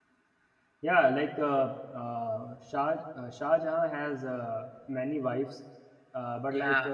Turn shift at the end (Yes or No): No